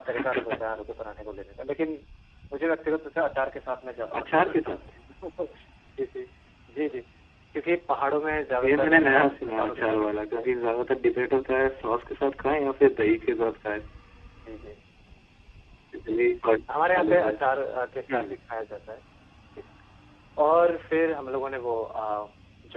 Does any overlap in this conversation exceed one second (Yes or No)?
Yes